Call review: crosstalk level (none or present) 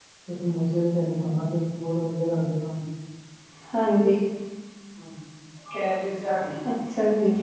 none